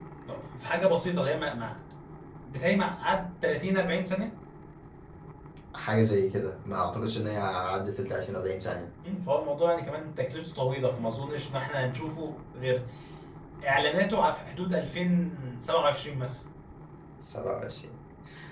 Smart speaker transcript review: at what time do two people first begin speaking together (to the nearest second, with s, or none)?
none